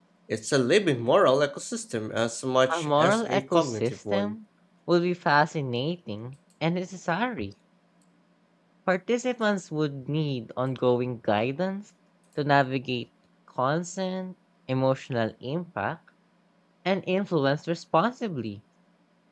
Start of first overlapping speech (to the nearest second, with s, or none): 3 s